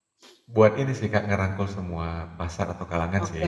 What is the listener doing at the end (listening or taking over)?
taking over